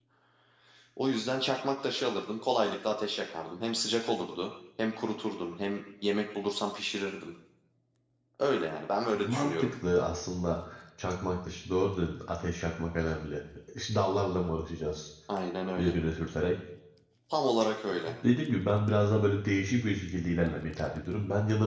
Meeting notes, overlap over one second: none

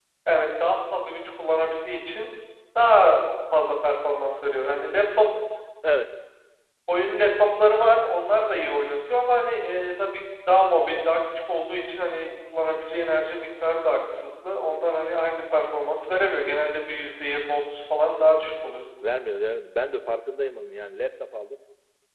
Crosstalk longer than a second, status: none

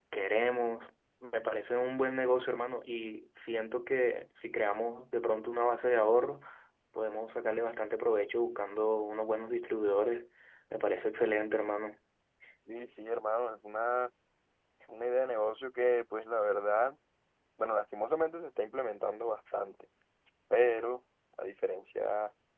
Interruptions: none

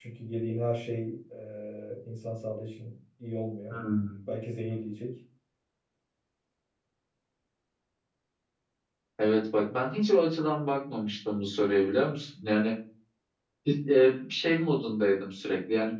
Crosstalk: none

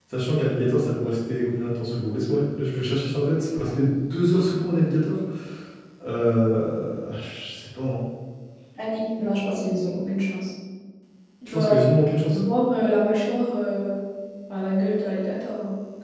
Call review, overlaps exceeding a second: none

